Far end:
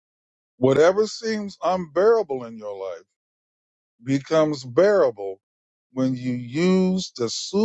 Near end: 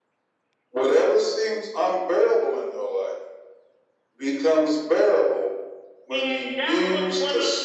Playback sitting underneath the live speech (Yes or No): No